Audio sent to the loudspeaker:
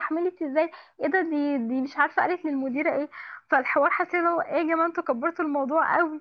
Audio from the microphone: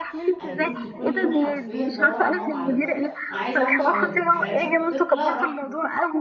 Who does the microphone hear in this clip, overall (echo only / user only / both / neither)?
both